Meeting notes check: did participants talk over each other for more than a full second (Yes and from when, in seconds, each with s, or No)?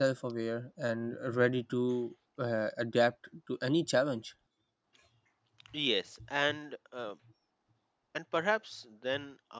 No